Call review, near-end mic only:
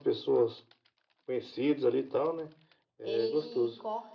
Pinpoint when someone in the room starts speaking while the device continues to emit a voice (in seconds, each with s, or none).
3.0 s